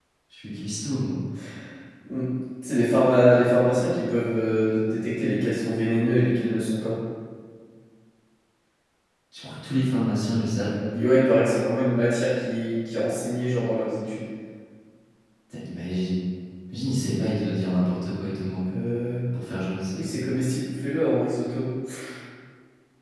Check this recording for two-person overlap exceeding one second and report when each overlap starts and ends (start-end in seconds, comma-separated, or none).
none